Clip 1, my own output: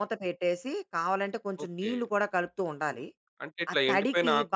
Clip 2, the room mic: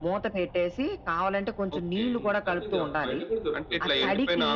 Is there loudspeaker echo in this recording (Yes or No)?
Yes